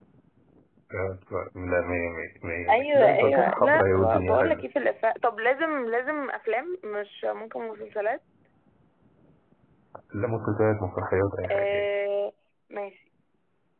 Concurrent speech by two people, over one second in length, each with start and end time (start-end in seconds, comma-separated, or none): 2.7-4.6